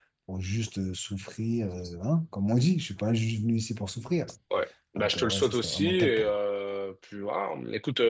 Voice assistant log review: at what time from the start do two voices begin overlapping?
5.0 s

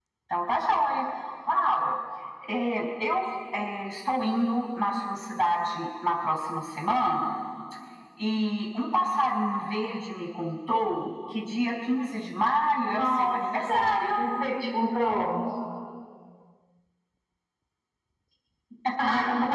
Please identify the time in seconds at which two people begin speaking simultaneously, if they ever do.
12.9 s

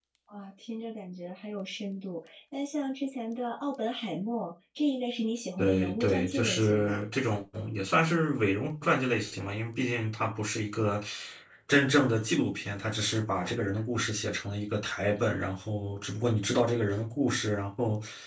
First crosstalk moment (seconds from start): 5.6 s

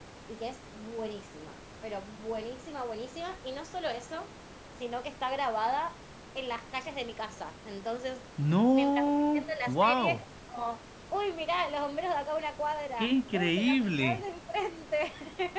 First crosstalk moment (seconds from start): 8.7 s

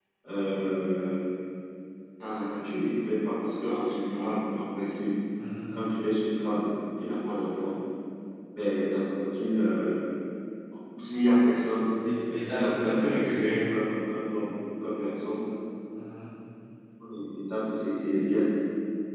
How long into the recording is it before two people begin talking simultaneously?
12.2 s

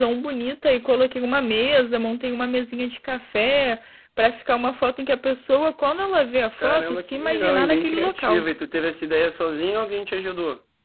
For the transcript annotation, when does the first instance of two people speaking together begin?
6.6 s

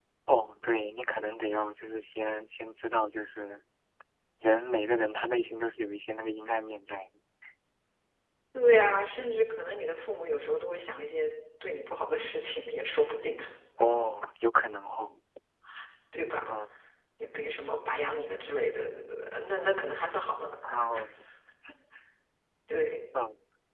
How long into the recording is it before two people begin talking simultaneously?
none

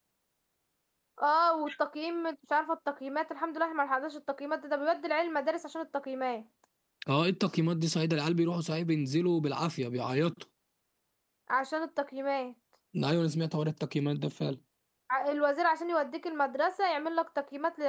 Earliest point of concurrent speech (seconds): none

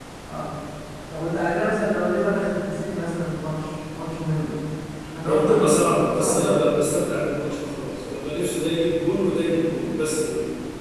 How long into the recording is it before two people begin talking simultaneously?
5.3 s

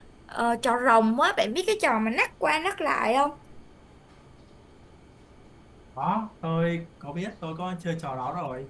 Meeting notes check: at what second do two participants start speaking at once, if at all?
none

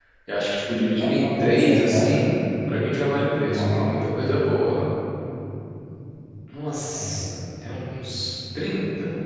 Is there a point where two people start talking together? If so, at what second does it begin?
1.0 s

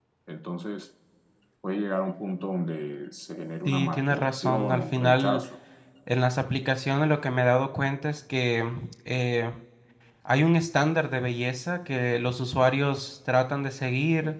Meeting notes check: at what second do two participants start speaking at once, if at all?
3.6 s

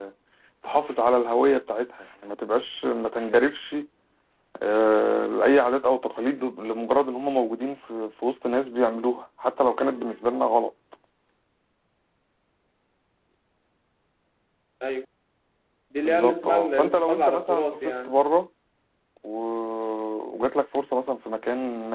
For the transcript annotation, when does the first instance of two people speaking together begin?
16.0 s

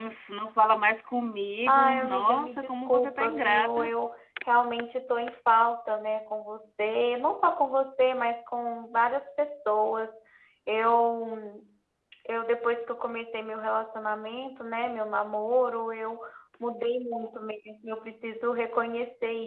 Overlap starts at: 1.7 s

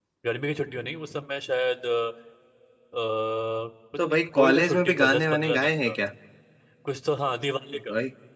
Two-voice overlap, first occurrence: 4.0 s

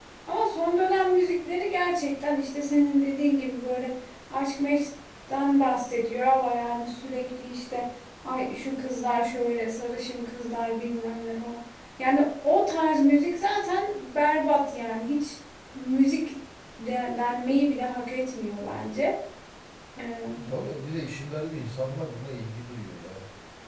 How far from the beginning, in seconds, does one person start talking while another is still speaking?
none

